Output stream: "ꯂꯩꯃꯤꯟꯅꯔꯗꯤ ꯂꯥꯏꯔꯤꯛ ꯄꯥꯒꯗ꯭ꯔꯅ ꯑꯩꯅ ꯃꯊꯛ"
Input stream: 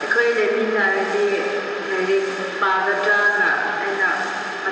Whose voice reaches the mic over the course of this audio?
echo only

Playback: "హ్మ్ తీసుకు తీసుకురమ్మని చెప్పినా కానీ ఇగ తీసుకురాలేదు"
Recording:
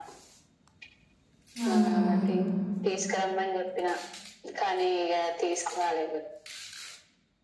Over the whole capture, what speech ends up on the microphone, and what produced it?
both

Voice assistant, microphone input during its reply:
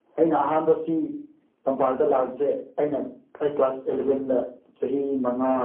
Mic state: echo only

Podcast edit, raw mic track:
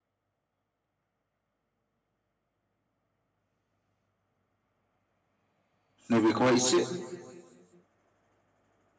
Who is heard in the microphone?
user only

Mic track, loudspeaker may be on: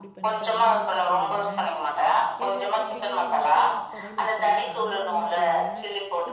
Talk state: both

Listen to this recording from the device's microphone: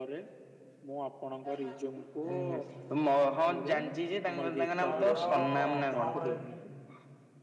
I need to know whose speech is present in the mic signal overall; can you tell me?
both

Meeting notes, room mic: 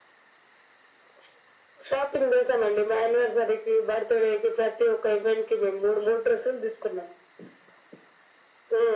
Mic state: echo only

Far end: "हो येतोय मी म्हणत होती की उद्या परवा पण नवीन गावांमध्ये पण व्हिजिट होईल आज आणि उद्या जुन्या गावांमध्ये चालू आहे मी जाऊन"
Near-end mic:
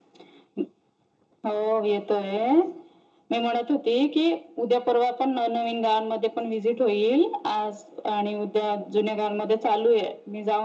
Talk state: echo only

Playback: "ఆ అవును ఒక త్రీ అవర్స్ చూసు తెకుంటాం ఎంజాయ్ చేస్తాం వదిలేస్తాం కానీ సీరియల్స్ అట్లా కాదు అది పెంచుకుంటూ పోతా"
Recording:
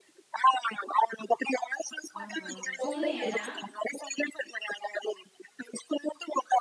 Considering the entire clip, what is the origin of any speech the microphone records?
both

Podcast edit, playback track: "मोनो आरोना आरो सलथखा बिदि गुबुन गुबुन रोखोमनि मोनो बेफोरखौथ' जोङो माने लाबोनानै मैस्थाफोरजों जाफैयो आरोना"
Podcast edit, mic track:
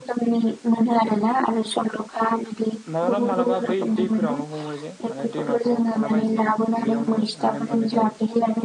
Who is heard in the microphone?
both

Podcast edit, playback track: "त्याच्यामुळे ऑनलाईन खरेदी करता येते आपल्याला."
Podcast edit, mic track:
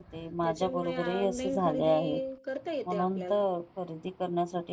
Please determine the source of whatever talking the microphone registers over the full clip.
both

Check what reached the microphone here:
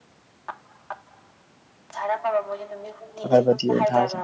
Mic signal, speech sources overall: both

